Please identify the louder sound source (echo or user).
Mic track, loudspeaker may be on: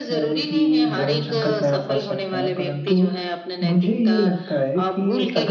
user